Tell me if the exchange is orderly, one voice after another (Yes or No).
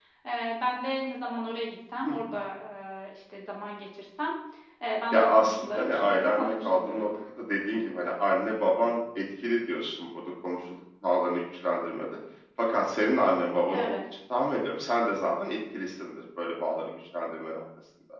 No